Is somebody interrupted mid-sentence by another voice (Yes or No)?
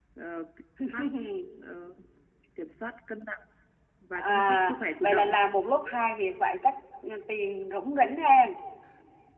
Yes